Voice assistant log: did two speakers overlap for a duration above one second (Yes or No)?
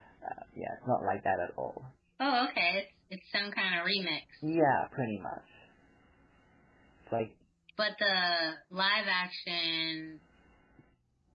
No